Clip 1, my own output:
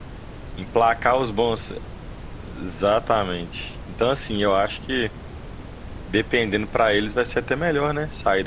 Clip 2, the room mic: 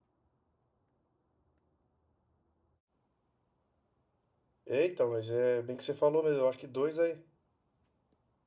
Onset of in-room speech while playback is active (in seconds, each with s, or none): 4.7 s